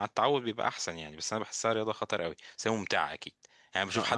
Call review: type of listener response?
taking over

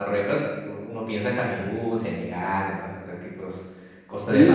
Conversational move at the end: taking over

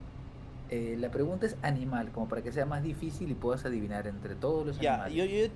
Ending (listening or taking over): taking over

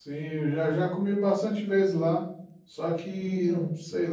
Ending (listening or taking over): listening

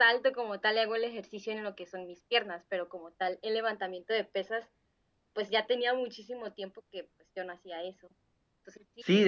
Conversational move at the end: taking over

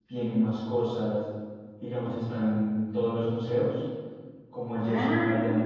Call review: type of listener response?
listening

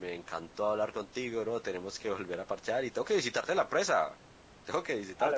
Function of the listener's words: taking over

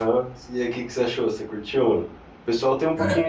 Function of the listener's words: listening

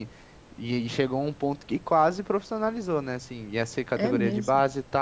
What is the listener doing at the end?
listening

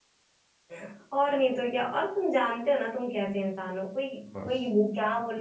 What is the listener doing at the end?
listening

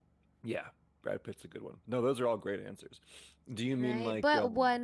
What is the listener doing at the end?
taking over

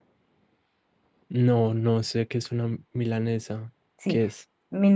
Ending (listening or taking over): taking over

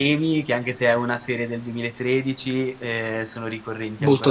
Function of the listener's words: taking over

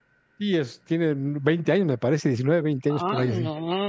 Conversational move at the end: taking over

